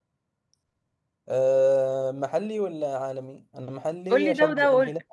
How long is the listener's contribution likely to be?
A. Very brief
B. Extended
B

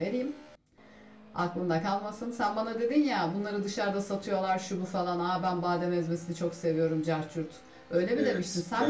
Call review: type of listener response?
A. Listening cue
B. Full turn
B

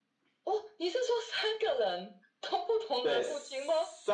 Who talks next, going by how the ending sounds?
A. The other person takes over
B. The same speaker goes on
A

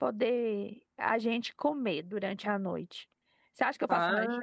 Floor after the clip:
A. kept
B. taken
A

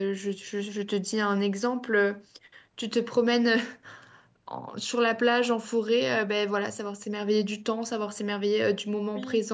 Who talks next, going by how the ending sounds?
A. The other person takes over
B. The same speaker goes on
A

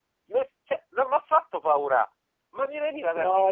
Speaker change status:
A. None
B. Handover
B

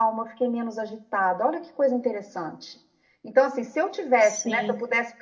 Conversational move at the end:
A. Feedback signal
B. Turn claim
A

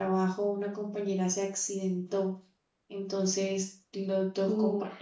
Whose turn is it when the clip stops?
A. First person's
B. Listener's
A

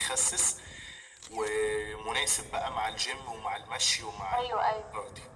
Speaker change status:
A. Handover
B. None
A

